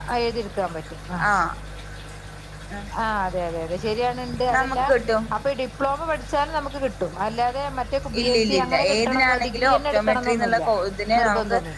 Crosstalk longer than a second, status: present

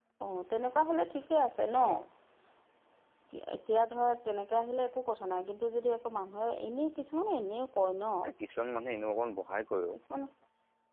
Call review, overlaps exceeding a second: none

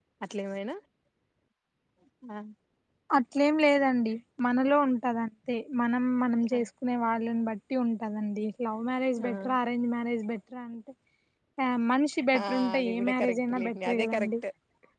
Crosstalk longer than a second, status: present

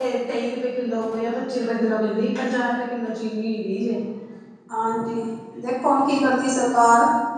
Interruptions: none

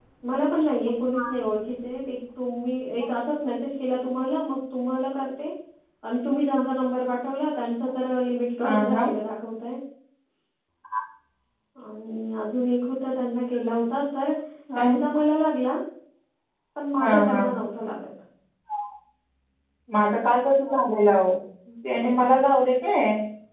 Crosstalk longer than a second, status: none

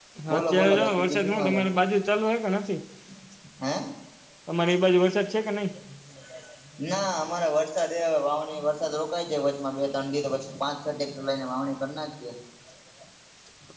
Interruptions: present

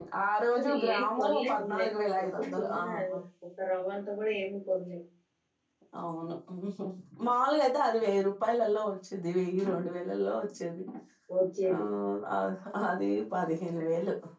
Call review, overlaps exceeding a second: present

